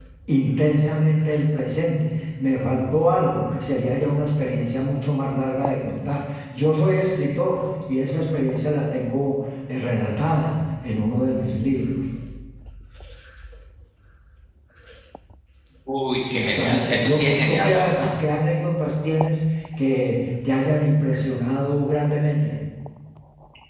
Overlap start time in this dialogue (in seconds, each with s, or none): 16.3 s